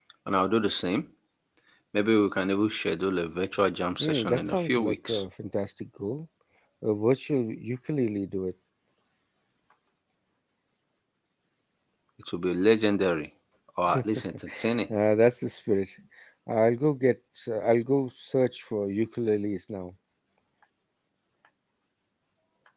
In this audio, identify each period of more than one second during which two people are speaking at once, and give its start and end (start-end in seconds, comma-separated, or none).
4.0-5.2